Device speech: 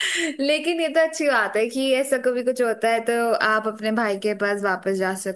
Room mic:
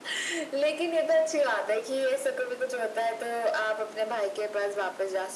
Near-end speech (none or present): none